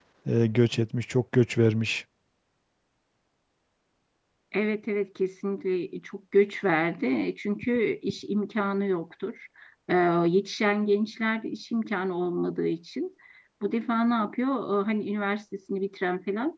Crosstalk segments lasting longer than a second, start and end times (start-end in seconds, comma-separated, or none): none